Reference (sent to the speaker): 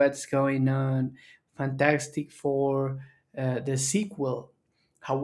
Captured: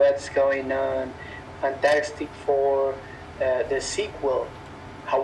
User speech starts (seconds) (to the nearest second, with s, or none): none